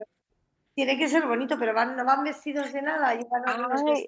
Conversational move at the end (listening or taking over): taking over